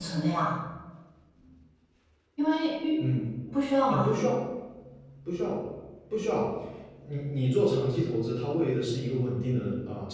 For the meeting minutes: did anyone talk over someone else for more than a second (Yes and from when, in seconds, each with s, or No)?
No